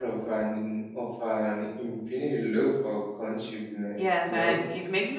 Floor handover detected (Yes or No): Yes